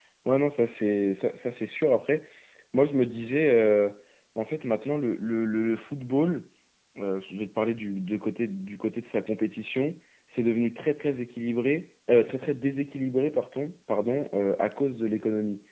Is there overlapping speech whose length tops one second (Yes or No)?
No